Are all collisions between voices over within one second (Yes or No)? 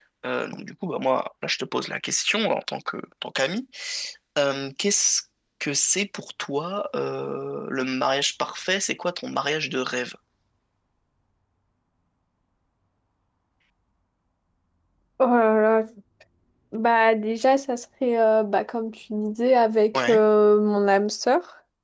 Yes